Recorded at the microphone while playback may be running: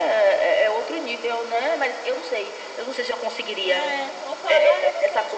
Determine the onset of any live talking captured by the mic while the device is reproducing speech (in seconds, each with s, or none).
3.7 s